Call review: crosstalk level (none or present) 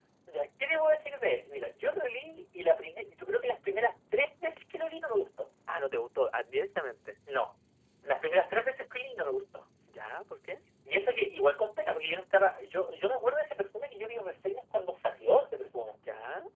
none